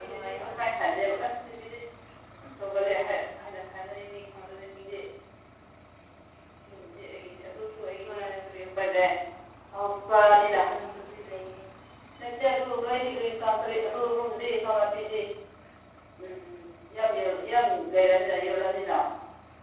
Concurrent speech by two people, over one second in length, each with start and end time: none

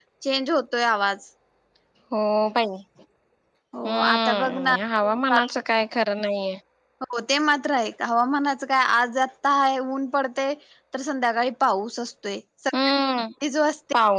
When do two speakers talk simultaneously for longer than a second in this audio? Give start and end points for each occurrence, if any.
3.8-5.5

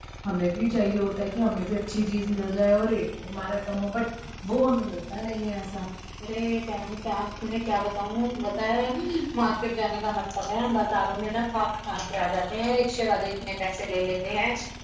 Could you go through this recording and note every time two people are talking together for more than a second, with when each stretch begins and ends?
none

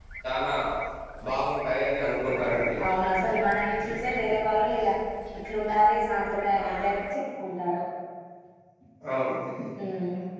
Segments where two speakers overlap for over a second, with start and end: none

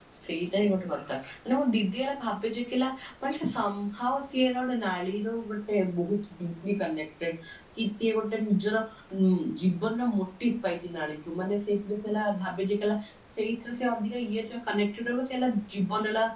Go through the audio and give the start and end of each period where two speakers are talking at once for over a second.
none

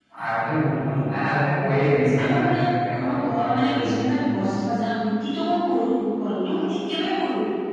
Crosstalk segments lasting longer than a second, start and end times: 2.2-4.0

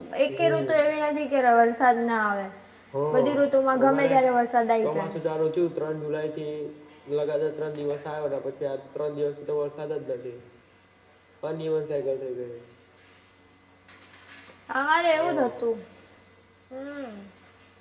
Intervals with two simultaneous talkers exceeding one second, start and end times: none

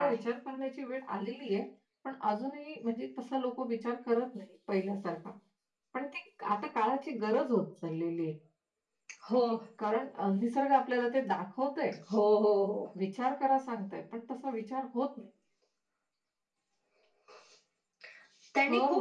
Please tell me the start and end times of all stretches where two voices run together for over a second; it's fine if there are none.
none

